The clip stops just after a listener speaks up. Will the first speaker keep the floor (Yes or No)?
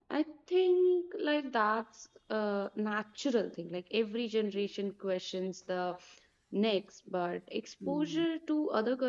Yes